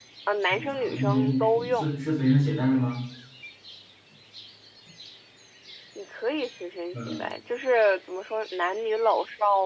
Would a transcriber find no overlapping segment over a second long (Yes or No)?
No